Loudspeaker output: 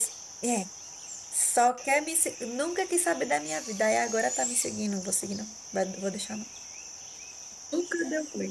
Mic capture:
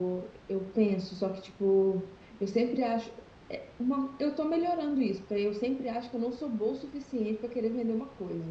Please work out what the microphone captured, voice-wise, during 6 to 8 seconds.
user only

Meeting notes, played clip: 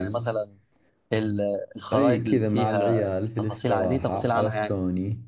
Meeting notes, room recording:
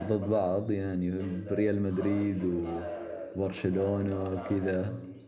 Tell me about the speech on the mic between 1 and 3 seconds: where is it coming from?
both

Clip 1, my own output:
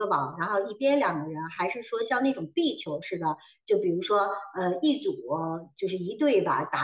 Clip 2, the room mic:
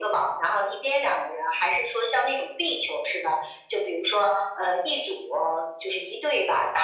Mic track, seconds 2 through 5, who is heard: echo only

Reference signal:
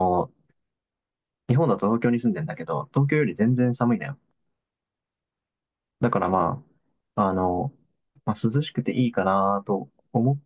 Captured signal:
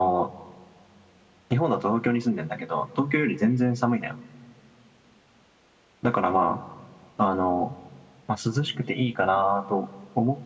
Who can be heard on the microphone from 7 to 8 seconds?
echo only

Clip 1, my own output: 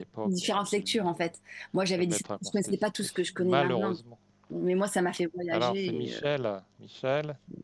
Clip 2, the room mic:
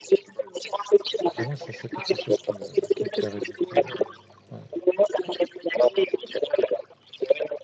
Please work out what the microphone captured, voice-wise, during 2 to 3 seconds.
both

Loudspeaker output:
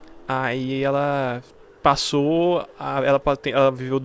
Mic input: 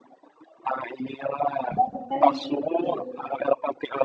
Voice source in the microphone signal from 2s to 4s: both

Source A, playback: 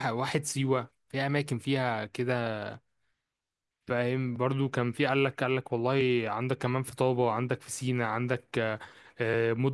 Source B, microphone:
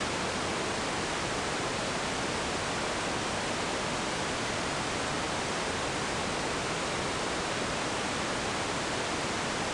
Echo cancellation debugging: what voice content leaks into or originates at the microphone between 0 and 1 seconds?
neither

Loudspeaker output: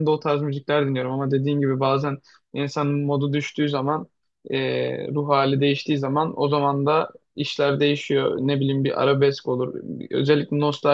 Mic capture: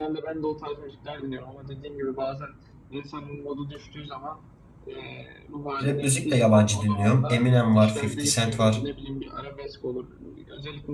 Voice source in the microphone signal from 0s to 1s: echo only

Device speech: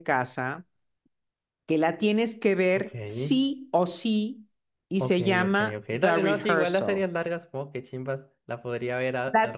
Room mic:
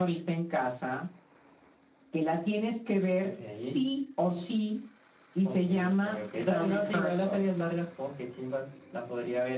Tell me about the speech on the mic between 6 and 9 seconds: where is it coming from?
echo only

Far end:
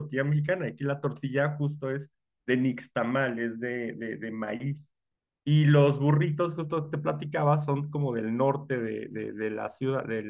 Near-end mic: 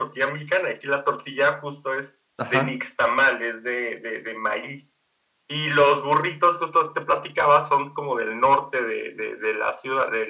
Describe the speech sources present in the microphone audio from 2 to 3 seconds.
both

